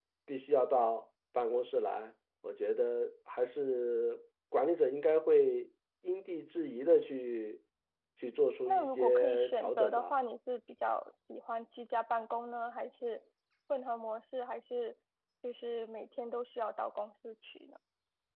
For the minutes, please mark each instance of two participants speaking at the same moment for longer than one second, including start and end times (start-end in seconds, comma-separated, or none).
8.7-10.2